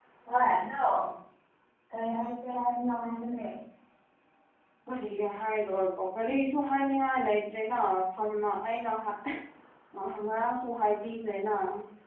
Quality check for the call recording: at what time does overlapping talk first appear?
none

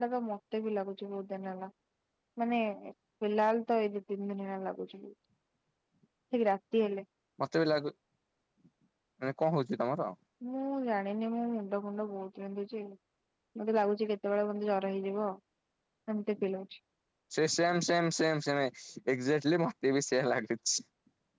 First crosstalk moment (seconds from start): none

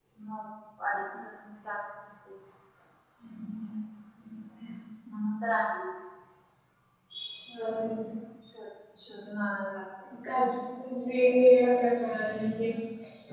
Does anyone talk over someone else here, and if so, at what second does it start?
none

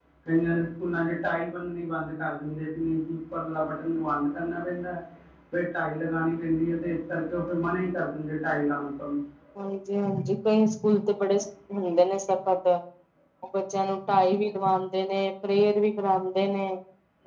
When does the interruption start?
none

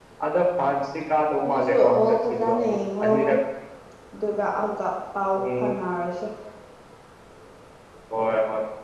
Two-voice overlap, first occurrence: 1.4 s

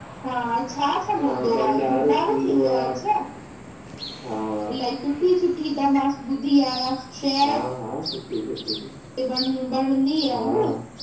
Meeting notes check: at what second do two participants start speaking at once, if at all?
1.2 s

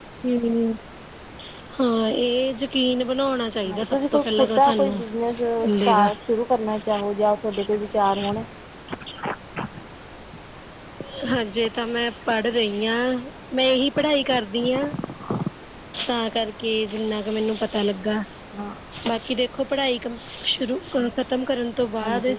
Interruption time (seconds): 3.7 s

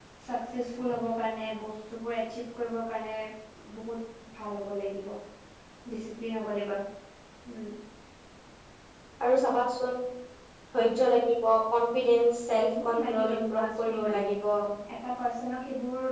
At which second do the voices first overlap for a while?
12.6 s

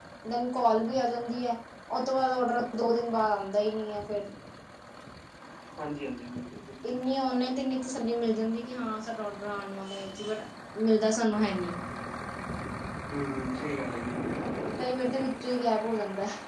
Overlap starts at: none

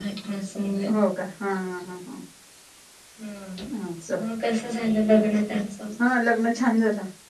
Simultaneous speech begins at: none

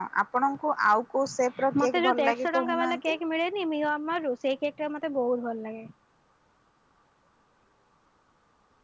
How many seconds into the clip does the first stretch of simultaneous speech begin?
1.8 s

